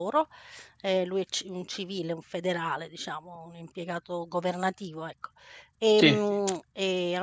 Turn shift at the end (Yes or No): No